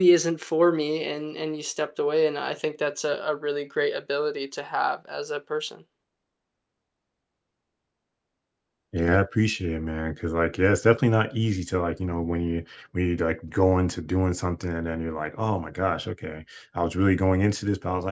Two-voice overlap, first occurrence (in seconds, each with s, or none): none